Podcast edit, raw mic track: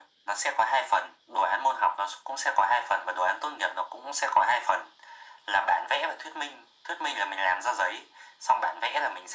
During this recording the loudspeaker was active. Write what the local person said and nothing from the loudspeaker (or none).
none